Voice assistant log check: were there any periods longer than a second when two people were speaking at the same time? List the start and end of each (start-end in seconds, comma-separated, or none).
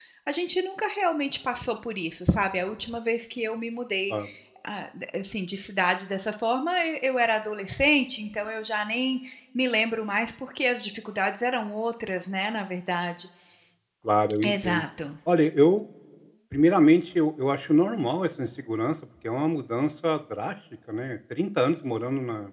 none